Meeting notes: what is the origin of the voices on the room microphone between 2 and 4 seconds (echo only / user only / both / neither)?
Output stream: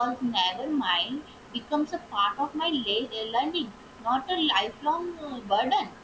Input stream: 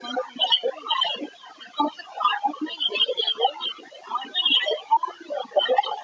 echo only